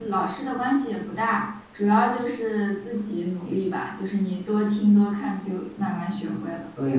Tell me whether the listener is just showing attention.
No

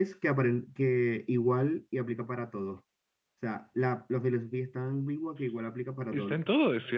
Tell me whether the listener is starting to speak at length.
Yes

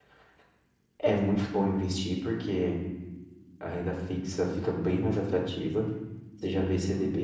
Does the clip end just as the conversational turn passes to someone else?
No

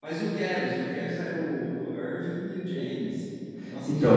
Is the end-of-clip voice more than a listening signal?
Yes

